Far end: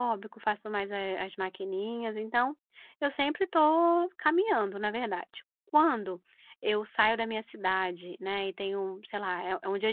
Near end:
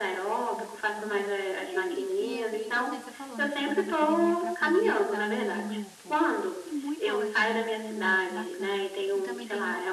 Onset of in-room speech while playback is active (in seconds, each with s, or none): 0.6 s